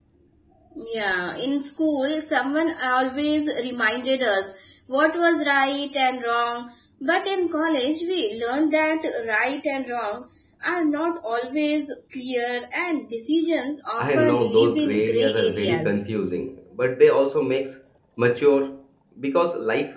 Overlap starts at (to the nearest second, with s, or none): 14 s